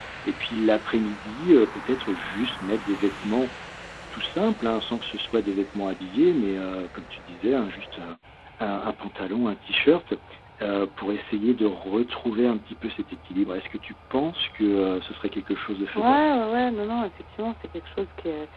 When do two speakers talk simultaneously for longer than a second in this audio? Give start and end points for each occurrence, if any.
none

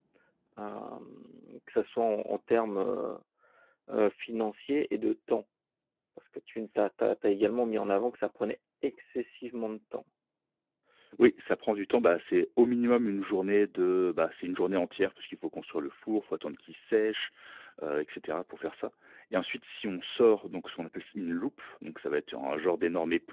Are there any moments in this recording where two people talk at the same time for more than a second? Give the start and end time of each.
none

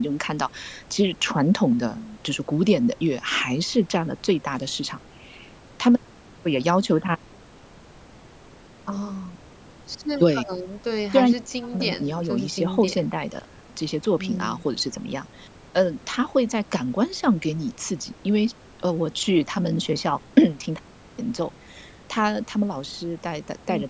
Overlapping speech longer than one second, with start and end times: 11.7-13.1

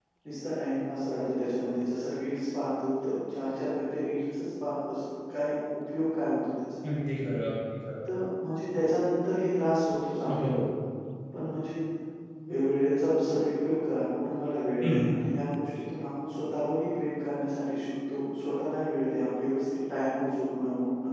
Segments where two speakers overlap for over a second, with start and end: none

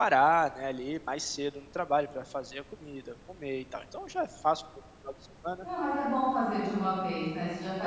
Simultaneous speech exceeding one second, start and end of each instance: none

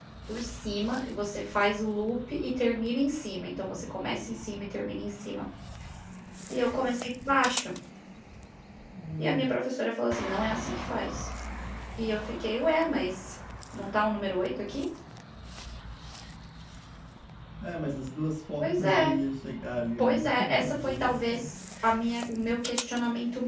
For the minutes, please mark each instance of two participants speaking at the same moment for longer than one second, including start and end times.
20.0-21.5

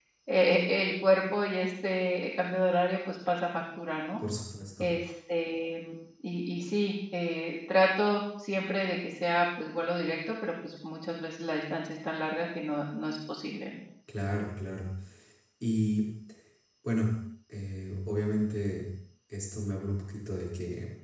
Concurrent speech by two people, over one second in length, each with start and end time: none

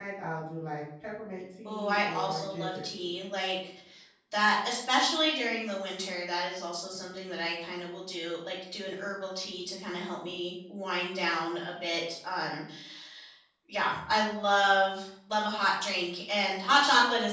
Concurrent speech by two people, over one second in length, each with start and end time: 1.6-3.2

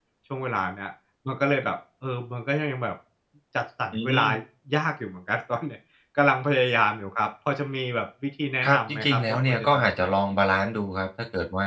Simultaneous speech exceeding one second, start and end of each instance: 8.6-10.2

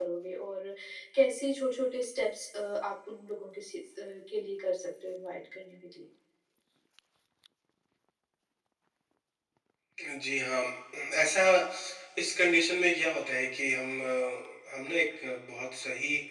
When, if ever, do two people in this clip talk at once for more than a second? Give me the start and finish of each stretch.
none

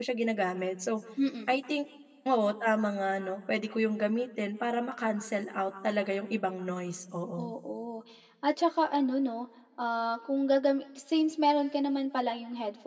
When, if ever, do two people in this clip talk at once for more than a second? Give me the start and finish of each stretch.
none

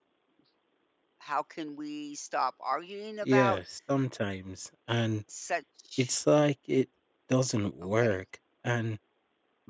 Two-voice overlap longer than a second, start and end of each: none

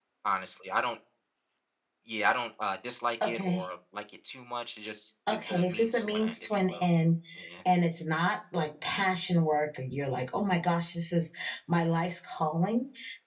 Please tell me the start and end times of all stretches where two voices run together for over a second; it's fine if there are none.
5.4-6.9

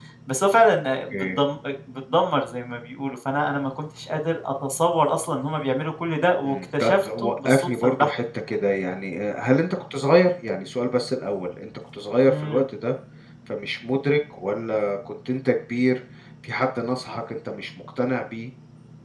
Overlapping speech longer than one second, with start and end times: 6.4-8.1

